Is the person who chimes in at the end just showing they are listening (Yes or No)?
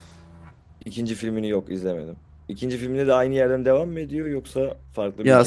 No